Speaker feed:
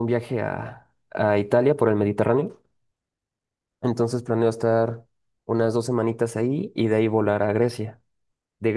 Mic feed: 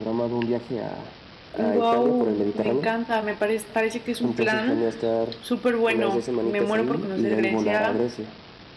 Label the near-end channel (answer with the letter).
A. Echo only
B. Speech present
B